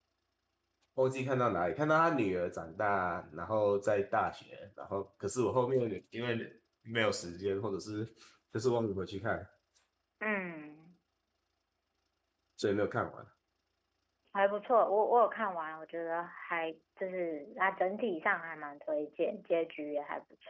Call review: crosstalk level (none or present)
none